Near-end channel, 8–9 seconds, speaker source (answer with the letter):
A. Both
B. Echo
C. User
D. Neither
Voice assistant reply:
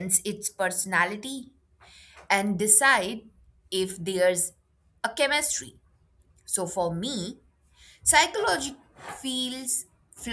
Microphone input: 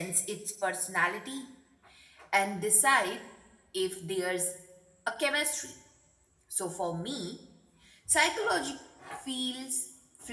B